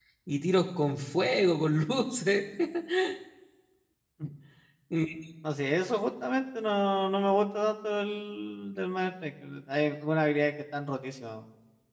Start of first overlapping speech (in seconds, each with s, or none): none